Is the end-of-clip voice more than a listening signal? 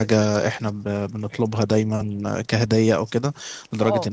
No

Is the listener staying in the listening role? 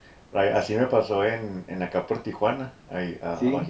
Yes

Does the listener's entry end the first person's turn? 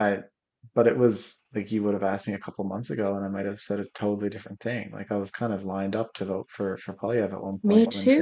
Yes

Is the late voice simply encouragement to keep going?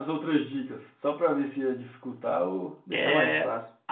No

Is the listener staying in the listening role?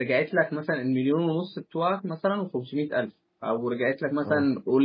Yes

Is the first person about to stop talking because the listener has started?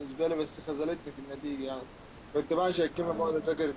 No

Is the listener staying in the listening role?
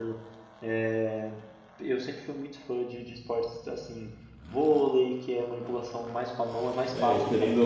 No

